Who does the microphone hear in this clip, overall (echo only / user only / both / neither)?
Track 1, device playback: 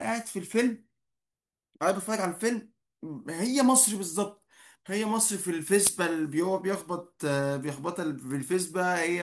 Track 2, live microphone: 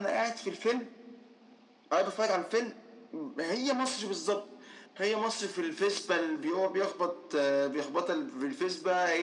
echo only